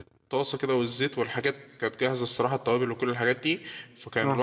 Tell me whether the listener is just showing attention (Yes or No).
Yes